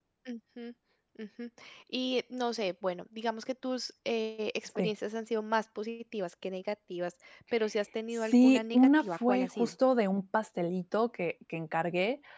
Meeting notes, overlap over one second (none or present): present